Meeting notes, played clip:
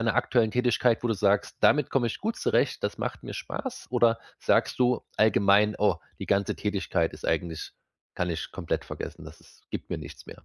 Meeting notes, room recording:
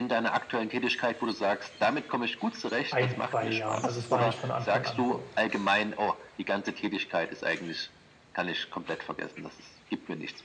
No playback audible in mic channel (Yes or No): No